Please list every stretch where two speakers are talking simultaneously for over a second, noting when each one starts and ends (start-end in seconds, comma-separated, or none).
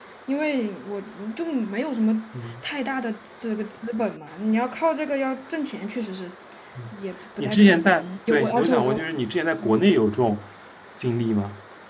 7.4-9.0